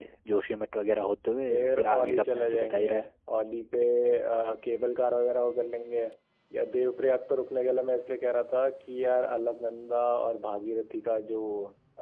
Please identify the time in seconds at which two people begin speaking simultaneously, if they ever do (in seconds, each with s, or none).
1.5 s